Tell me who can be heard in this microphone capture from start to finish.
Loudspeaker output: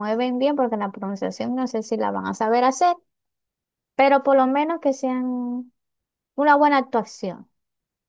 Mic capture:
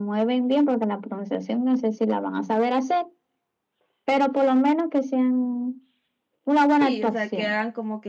both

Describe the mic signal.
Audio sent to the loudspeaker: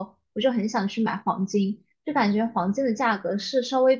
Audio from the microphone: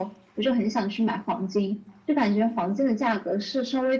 echo only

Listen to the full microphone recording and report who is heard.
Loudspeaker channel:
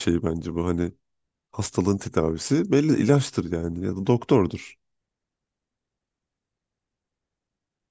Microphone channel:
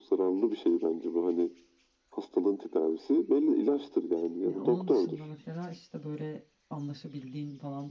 both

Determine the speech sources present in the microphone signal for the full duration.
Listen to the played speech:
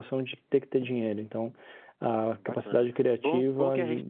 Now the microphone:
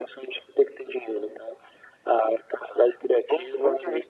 echo only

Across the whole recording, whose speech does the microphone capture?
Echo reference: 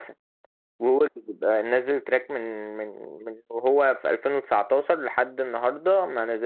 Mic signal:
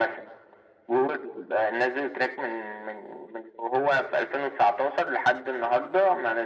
echo only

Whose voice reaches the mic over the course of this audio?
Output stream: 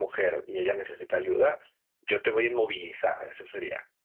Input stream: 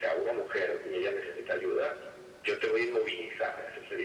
echo only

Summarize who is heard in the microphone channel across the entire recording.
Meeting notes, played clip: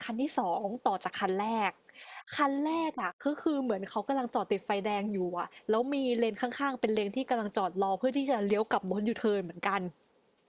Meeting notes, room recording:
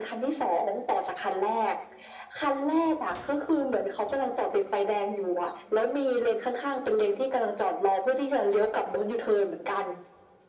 echo only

